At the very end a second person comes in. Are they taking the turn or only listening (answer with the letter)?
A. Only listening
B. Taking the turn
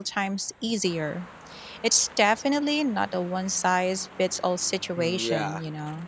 B